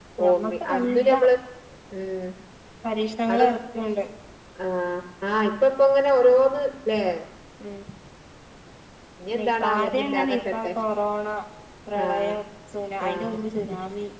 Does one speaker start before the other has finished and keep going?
Yes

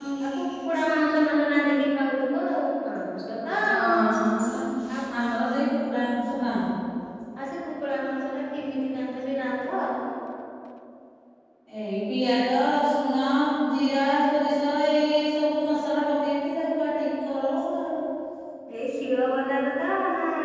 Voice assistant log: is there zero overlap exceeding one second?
Yes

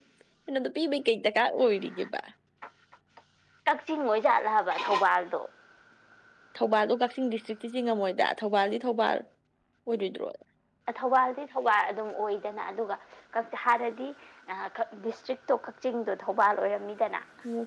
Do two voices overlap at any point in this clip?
No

